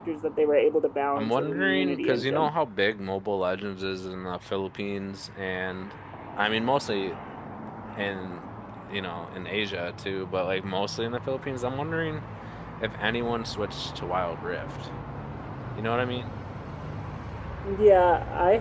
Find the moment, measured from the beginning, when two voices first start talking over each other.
1.1 s

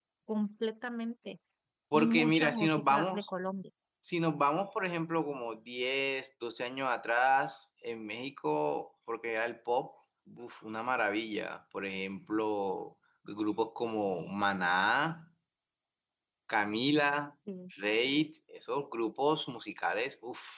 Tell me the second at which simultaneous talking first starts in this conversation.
1.9 s

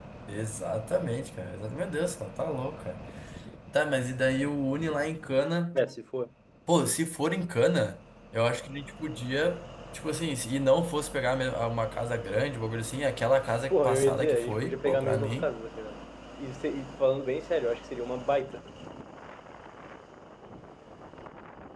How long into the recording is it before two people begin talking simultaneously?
13.7 s

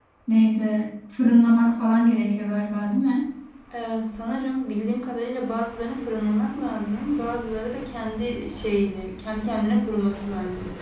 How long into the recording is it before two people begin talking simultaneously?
none

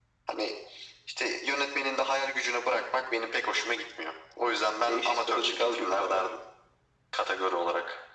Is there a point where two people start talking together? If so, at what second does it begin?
4.8 s

